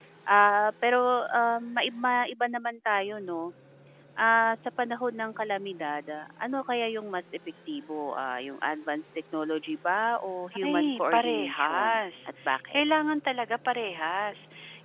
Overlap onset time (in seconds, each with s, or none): 10.5 s